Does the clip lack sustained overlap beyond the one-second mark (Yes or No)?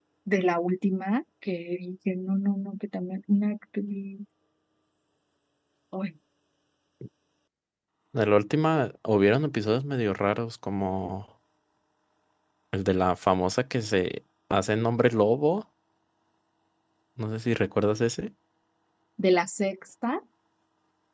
Yes